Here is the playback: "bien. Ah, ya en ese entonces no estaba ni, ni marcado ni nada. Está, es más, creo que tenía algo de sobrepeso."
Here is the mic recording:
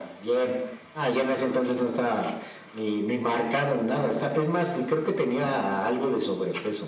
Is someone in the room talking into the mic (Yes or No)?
No